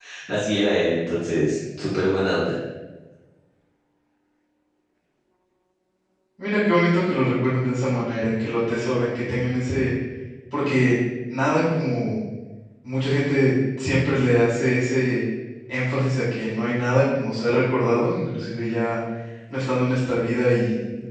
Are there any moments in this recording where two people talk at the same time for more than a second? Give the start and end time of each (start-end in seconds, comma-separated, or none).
none